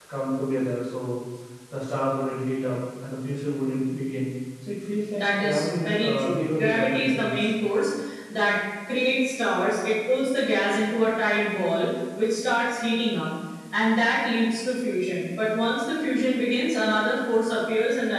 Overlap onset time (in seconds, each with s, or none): 5.1 s